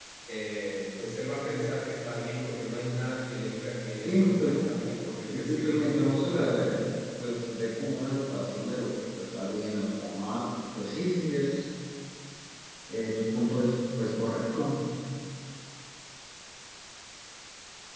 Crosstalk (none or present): present